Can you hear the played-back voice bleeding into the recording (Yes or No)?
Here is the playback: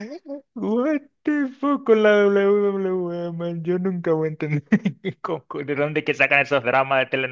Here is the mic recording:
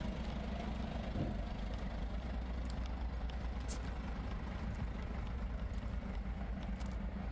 No